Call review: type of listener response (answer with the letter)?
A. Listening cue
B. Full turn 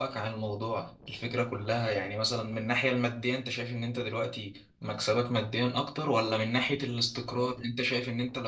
A